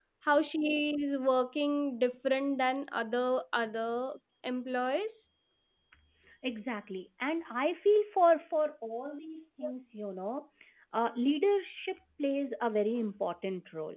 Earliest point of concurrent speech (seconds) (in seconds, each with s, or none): none